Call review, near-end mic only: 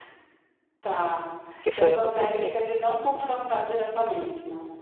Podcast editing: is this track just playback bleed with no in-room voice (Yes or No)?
No